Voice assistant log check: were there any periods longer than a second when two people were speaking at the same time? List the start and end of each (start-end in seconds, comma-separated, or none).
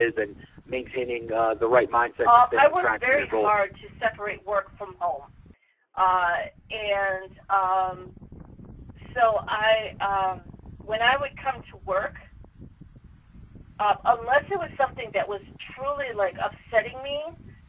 2.2-3.6